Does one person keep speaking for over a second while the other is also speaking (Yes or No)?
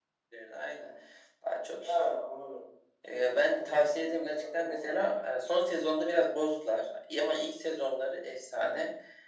Yes